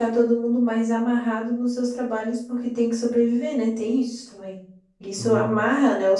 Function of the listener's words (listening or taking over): listening